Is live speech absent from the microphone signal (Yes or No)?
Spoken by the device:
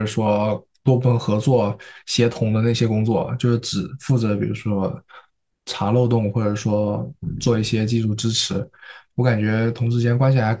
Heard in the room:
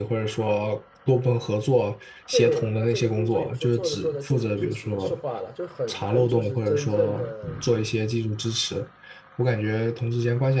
No